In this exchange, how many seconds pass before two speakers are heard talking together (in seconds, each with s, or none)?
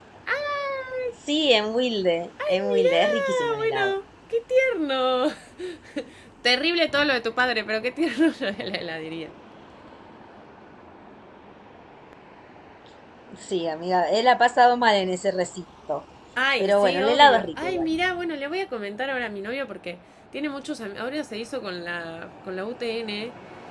2.5 s